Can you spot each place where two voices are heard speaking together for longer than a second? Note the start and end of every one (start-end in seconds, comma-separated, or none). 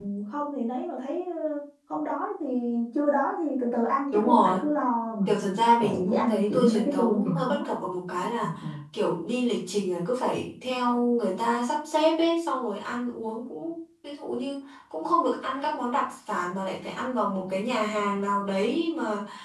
5.8-7.7